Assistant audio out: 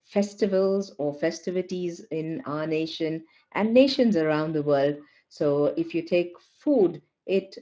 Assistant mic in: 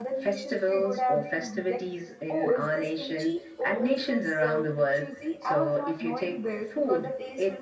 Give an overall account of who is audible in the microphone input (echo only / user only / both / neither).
both